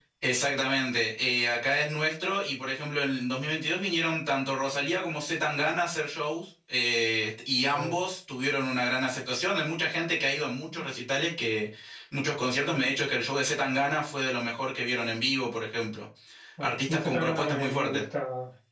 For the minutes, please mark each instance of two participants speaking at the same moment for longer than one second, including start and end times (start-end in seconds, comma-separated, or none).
16.6-18.0